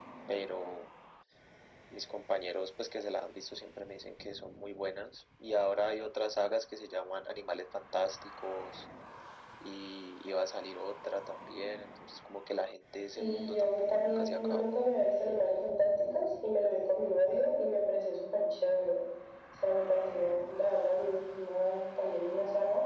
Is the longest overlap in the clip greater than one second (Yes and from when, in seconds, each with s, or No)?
Yes, from 13.1 s